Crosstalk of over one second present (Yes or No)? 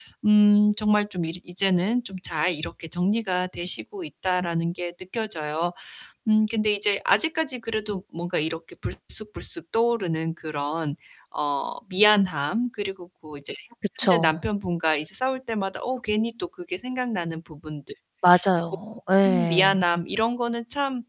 No